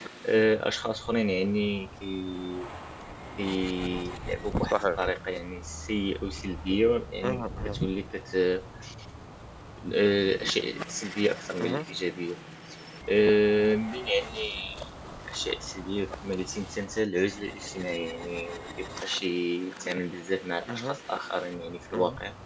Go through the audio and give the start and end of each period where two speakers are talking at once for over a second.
none

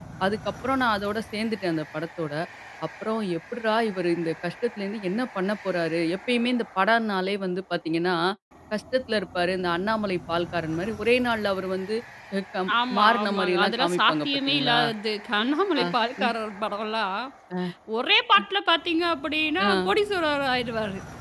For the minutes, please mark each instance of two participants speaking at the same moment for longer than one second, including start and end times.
12.9-14.8

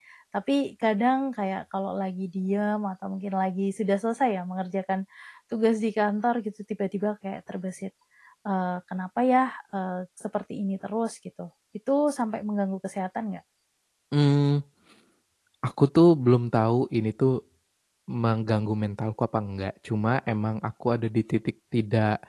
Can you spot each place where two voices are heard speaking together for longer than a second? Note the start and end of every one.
none

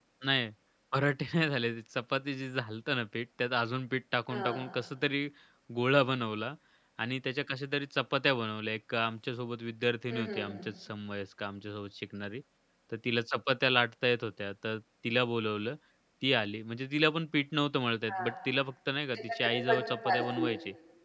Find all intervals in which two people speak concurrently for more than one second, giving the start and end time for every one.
19.1-20.5

